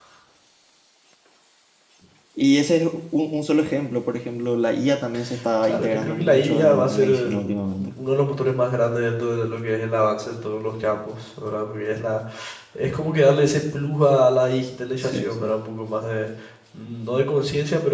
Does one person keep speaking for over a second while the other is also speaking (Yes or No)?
Yes